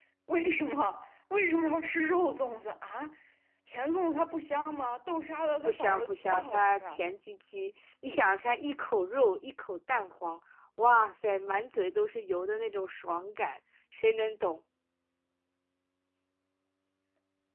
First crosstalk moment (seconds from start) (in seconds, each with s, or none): 5.6 s